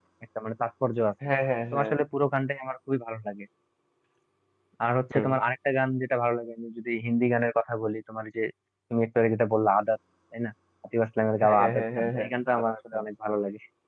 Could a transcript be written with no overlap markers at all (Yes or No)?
No